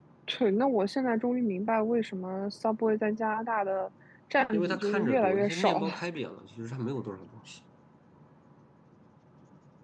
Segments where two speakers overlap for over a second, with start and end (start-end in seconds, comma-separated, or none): 4.5-5.9